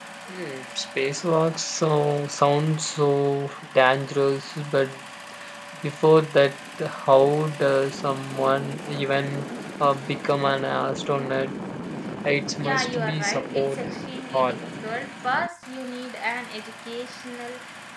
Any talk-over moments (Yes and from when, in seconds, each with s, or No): Yes, from 12.6 s